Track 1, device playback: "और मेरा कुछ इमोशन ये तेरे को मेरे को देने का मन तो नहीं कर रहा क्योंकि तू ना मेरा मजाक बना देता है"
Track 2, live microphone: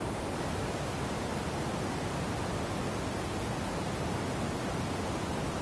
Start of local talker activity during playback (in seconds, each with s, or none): none